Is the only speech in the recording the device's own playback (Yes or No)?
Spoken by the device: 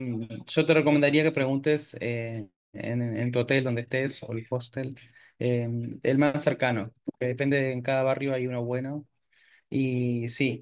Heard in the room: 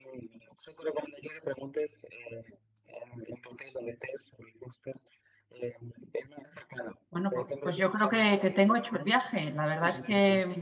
No